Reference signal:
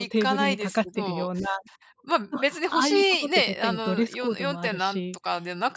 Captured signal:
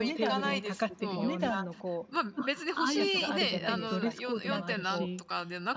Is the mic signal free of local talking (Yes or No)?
No